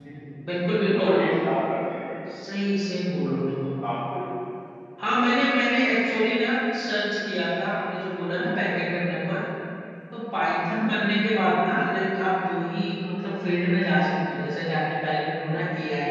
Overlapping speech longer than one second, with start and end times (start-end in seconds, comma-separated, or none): none